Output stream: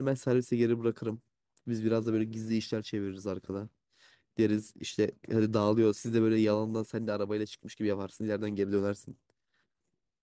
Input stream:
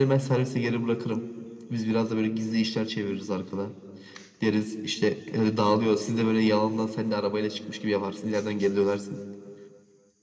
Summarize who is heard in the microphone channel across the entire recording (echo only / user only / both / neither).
echo only